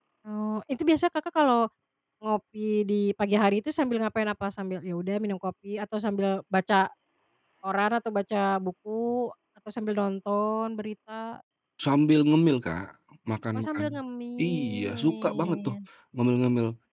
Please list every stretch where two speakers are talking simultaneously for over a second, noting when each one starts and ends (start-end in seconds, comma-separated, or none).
14.4-15.8